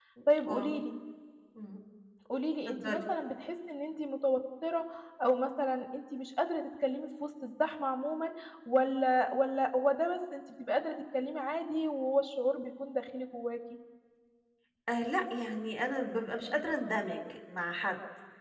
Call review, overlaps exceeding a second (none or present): none